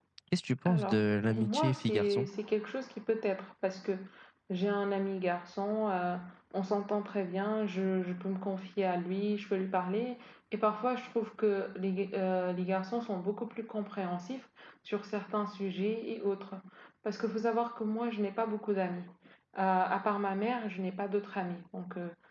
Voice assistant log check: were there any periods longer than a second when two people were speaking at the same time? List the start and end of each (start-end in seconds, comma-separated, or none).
0.7-2.3